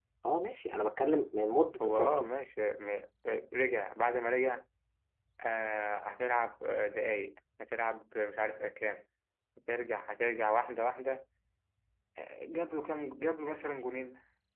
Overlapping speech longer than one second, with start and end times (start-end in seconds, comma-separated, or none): none